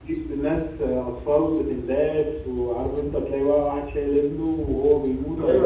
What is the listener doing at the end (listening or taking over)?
taking over